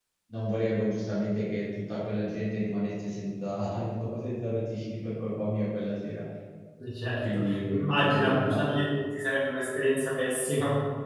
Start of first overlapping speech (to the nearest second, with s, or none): 7 s